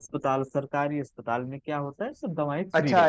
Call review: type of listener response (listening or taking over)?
taking over